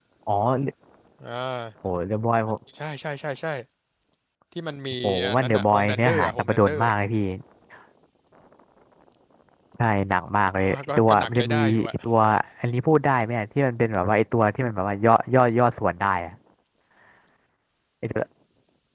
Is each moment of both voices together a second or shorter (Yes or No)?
No